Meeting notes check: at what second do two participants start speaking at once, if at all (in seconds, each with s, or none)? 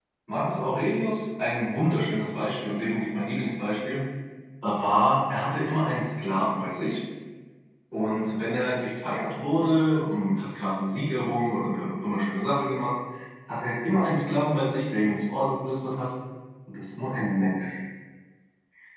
none